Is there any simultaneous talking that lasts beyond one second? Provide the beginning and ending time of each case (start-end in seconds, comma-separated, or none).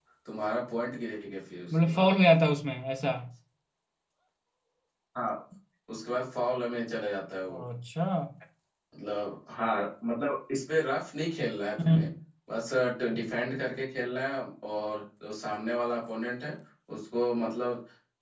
none